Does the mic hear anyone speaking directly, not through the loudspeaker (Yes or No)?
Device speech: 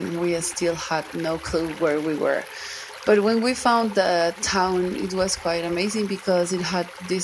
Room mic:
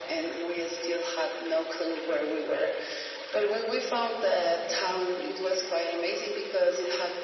No